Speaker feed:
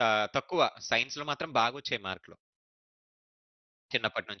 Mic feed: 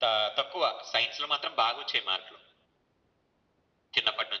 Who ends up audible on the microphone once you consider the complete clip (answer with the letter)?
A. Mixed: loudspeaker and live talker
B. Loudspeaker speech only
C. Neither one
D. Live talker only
B